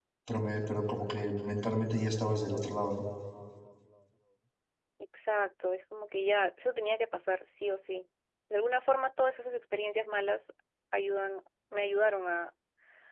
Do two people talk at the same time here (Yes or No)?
No